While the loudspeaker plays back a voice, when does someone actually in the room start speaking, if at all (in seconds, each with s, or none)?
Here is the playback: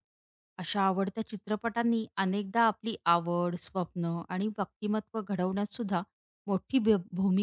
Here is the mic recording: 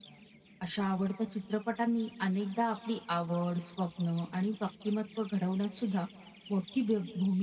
none